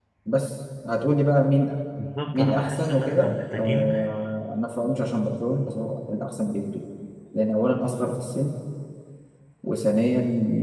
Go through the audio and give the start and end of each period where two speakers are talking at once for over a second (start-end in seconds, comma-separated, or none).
2.3-3.9